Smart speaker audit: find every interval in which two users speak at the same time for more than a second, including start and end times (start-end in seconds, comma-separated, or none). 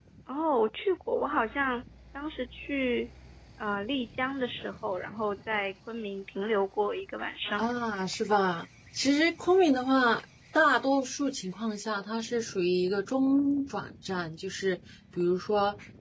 none